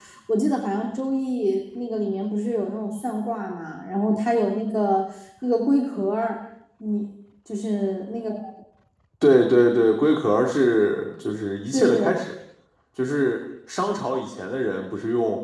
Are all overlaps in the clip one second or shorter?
Yes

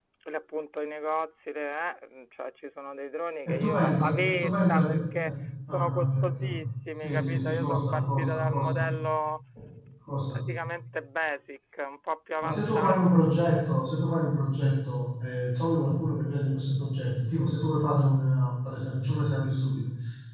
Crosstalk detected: Yes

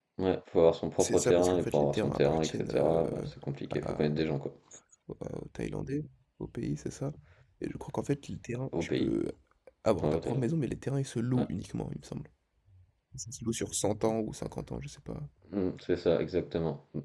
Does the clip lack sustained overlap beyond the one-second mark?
No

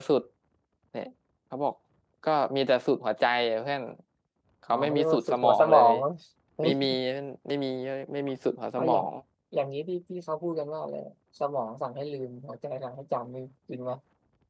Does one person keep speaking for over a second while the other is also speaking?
Yes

